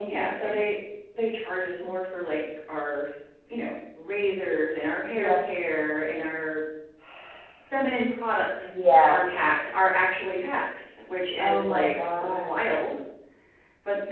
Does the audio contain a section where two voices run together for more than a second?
Yes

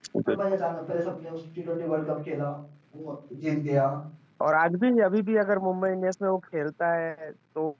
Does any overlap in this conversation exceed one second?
No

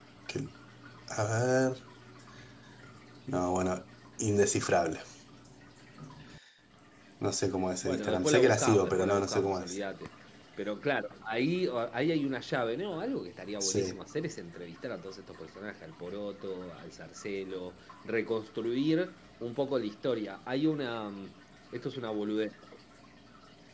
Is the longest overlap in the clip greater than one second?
Yes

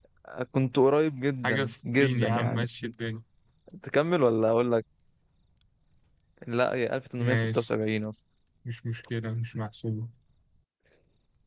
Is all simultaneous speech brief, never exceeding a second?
No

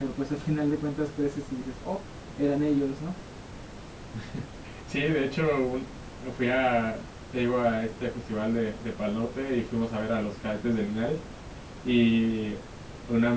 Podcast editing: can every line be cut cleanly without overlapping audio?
Yes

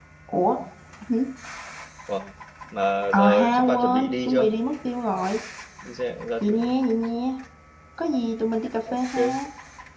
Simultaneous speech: Yes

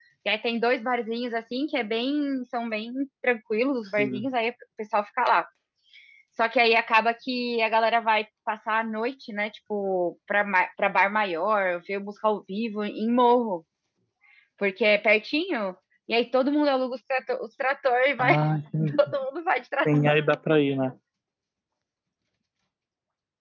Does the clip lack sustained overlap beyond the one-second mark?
Yes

